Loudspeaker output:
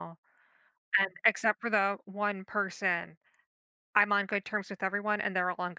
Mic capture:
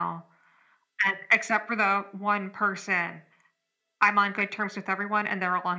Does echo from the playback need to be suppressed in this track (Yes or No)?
Yes